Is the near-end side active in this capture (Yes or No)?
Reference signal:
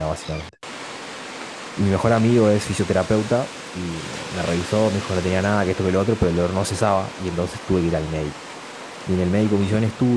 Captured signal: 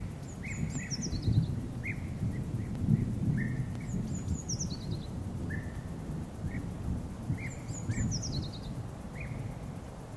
No